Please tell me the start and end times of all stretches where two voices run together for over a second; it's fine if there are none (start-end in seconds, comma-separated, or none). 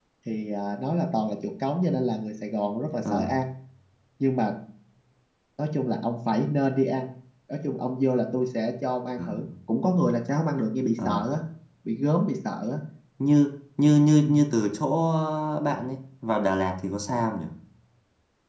none